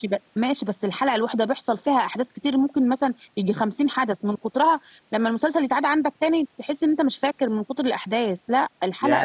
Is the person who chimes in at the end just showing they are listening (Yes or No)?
No